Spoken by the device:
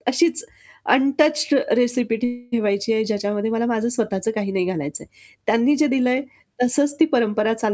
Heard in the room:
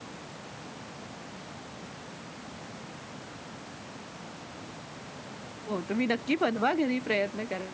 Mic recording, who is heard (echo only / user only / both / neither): user only